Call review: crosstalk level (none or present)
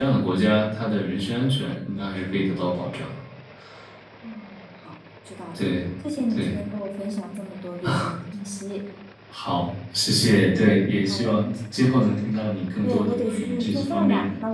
present